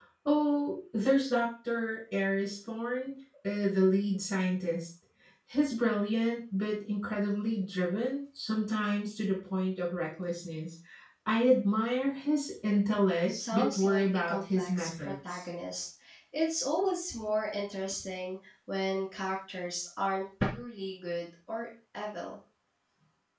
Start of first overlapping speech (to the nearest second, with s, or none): 13 s